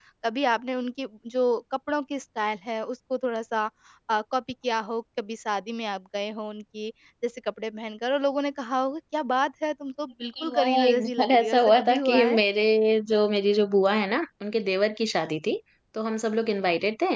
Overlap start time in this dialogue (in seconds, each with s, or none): 10.2 s